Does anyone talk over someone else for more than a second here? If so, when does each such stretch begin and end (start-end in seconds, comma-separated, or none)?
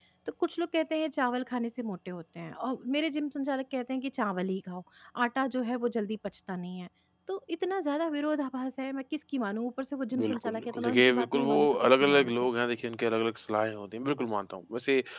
10.2-12.3